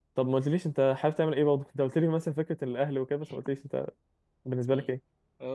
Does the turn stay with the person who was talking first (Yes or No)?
No